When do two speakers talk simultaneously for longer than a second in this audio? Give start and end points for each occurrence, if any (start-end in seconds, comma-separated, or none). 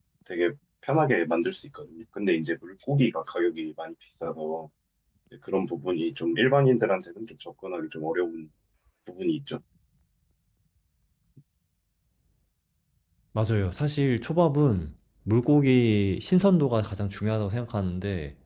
none